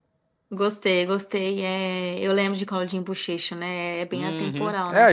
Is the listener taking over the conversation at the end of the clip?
Yes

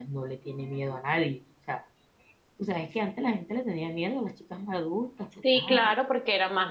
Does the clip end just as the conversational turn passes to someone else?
Yes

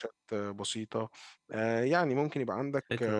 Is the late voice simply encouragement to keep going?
Yes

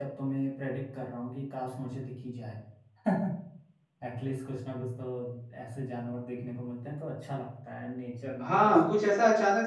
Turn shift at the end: Yes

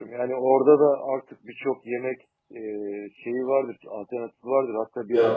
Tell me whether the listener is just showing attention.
Yes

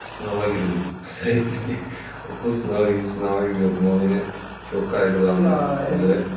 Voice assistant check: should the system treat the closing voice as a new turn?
No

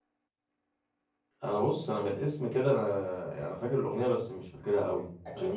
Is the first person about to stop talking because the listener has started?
Yes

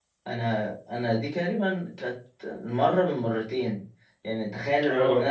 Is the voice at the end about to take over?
No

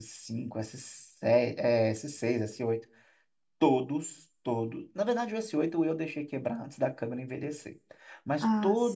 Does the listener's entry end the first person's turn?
No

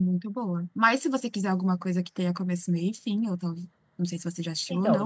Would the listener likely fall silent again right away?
No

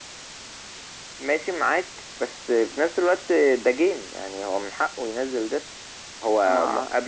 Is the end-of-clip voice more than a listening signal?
No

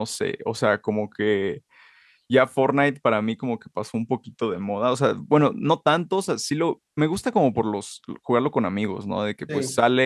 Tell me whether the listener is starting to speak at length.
No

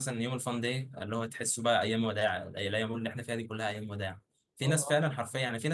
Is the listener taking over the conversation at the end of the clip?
No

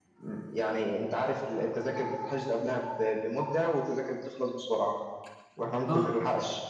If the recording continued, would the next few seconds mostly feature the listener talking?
No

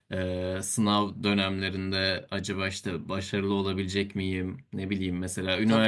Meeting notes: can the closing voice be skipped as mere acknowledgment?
Yes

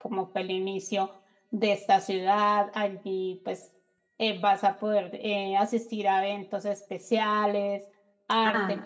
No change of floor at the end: No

